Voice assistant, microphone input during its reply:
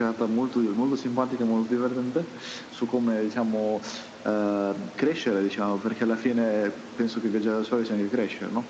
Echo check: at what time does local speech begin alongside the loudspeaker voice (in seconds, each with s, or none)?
none